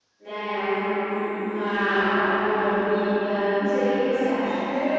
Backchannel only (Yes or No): No